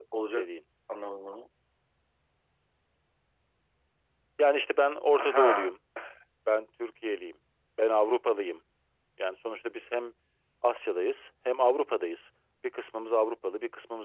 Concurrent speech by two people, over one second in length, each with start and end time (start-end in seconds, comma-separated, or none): none